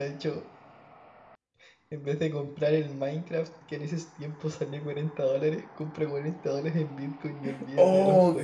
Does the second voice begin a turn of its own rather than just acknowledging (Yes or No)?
Yes